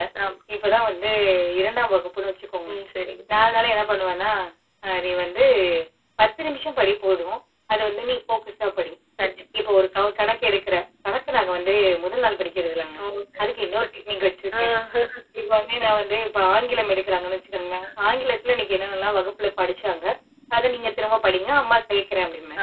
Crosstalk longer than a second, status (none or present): none